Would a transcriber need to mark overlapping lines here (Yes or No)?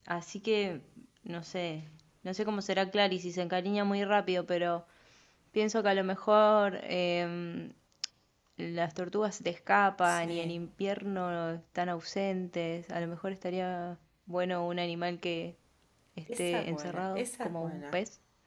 Yes